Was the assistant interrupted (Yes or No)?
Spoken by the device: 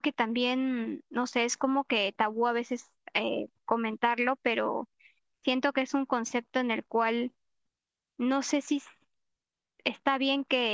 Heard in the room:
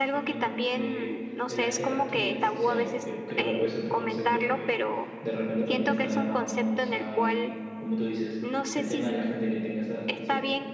Yes